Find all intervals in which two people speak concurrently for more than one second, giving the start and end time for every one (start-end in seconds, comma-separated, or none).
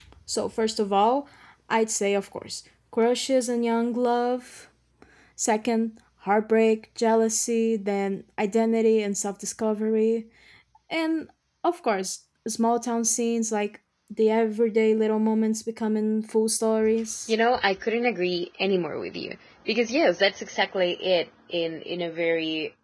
none